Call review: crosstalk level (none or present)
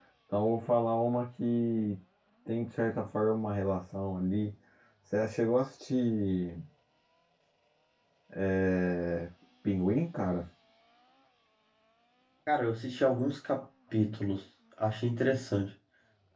none